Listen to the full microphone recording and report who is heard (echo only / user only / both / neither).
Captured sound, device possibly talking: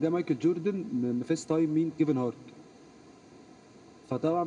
echo only